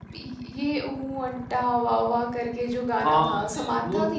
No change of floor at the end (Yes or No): No